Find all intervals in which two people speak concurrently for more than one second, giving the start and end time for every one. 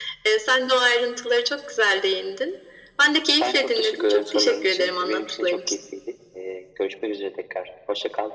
3.4-5.7

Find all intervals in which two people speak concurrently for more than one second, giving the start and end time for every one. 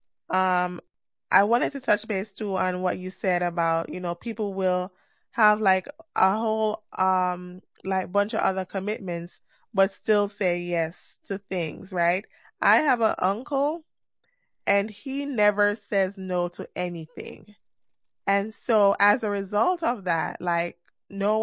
none

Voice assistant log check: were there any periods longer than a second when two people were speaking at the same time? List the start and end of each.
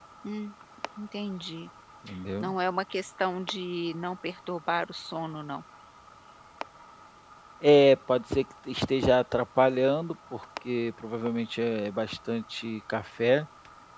none

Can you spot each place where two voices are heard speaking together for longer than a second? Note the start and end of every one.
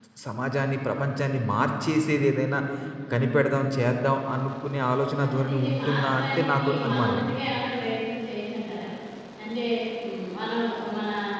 5.2-7.2

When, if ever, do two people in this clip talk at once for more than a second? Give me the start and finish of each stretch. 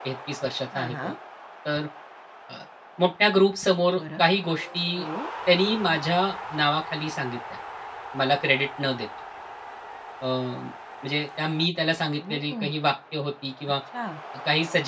none

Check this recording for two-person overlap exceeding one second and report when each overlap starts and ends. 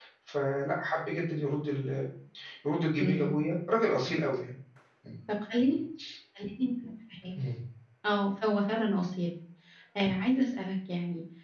none

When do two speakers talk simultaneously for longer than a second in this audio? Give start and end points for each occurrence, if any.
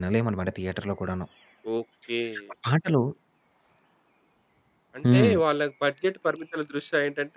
none

